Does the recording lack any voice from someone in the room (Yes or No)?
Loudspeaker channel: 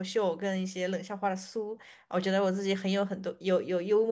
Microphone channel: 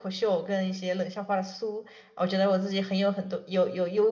Yes